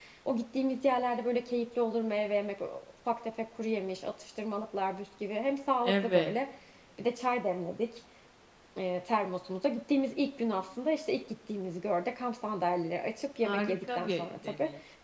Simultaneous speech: Yes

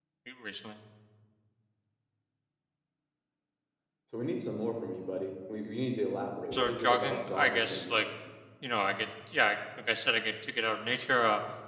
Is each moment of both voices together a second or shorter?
No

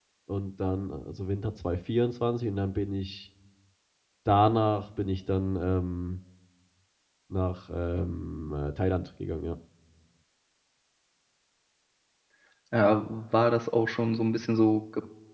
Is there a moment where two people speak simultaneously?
No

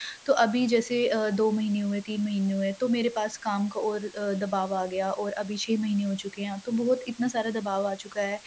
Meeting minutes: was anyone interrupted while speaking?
No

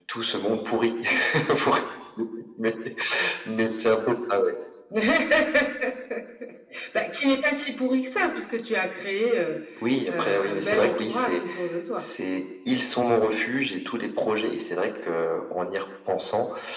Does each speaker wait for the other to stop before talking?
No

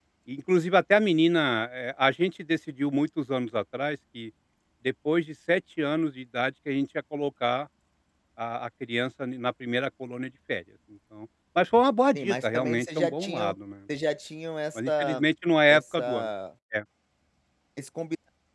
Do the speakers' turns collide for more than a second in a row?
Yes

